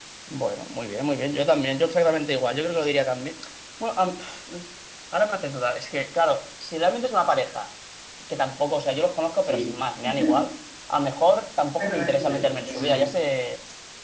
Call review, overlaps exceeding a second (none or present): present